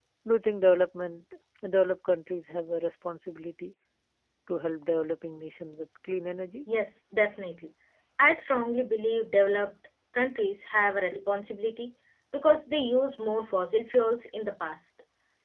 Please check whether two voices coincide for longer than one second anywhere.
No

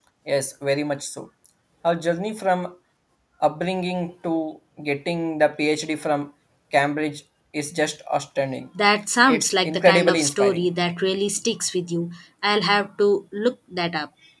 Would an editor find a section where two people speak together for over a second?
Yes, from 9.3 s

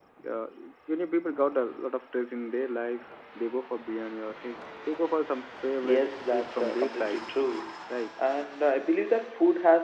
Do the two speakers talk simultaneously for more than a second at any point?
Yes, from 5.8 s

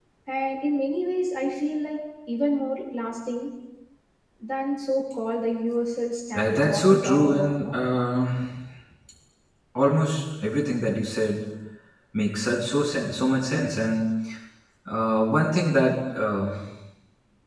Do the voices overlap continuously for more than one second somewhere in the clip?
Yes, from 6.3 s

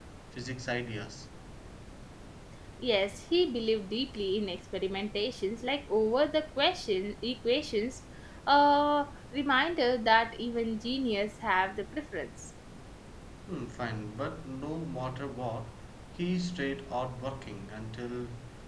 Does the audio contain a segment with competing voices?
No

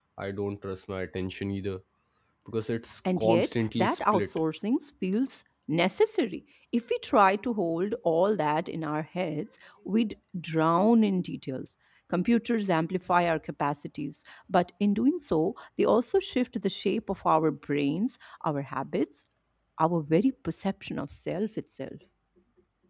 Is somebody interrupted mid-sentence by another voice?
Yes, from 3.2 s

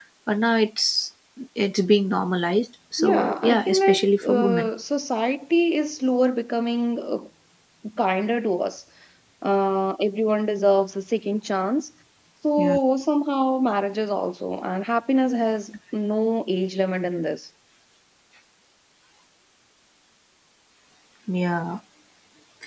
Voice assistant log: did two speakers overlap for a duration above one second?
Yes, from 3.0 s

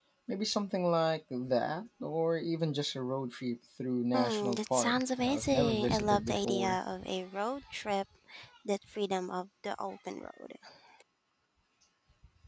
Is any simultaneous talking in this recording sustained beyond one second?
Yes, from 4.1 s

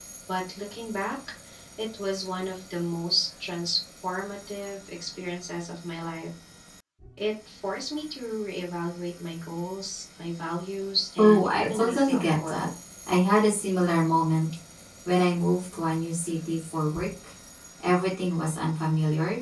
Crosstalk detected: Yes, from 11.2 s

